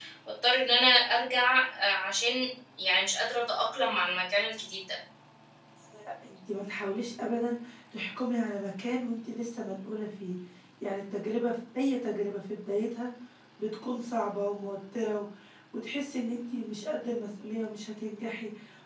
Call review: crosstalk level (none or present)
none